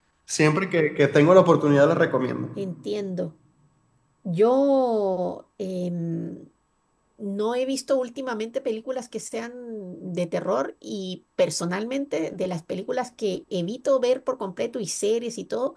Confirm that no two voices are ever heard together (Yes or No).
Yes